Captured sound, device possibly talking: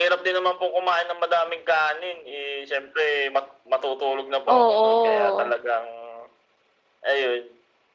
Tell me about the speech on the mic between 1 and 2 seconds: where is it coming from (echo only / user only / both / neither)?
echo only